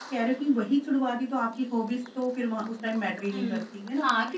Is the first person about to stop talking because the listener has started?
Yes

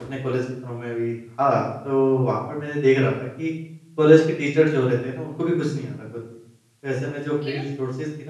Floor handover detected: No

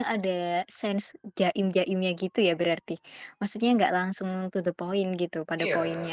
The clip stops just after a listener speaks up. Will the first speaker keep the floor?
No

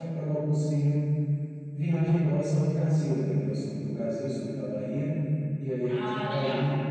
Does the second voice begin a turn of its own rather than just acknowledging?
No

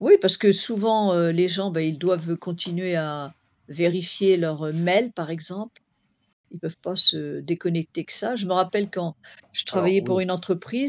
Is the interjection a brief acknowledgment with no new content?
Yes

